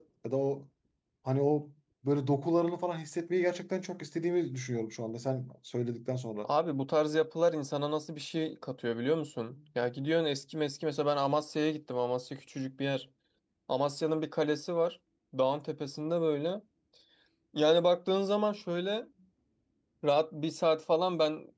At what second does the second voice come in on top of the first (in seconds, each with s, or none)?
none